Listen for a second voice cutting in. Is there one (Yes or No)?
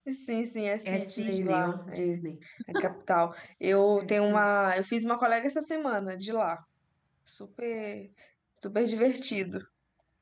Yes